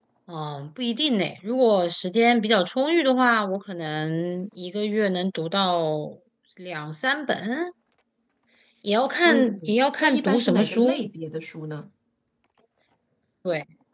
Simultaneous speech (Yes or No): Yes